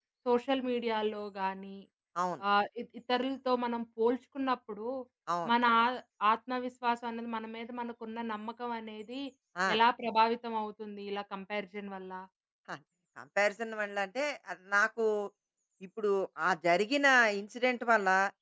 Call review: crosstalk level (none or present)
none